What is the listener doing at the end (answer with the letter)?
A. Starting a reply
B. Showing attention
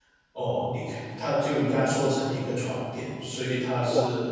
B